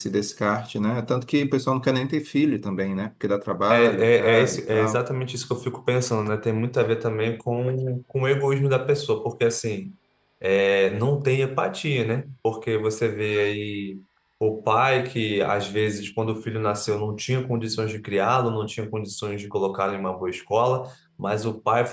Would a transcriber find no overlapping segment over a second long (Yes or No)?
No